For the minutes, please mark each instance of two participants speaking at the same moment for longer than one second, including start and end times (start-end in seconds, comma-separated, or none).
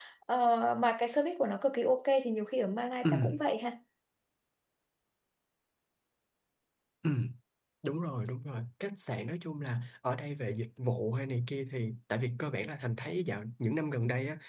none